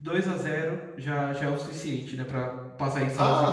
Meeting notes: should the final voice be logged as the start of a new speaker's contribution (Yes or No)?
Yes